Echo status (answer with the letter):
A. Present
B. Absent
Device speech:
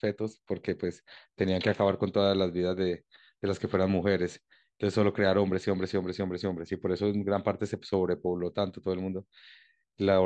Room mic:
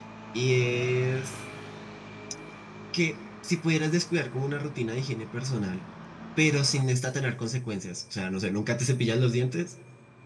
B